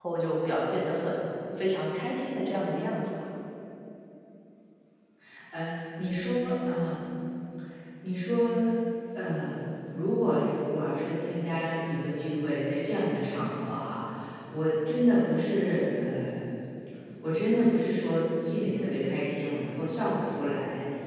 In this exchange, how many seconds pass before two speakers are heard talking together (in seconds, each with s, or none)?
none